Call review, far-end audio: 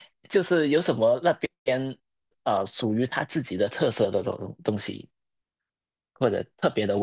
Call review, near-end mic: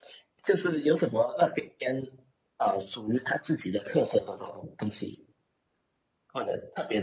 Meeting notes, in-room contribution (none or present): none